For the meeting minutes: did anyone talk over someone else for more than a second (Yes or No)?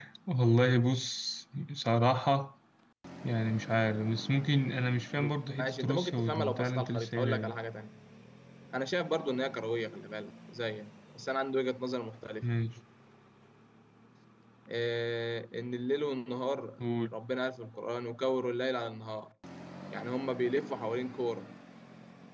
Yes